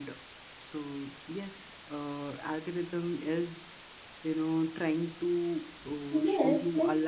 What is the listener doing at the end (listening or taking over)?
taking over